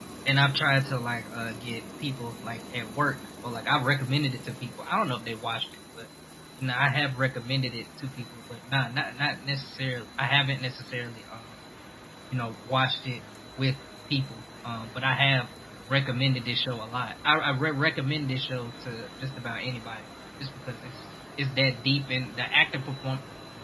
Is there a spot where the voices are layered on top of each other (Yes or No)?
No